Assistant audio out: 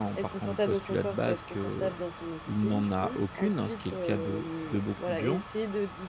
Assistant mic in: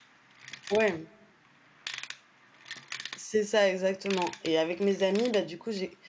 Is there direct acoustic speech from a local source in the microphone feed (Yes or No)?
Yes